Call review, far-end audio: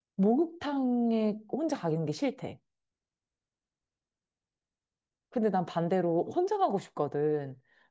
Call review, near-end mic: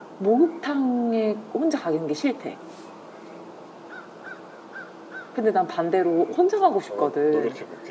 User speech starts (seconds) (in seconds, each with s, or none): 6.9 s